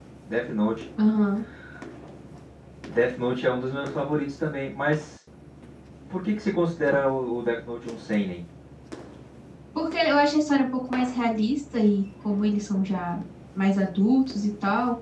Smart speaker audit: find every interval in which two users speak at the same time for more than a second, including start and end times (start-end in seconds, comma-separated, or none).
none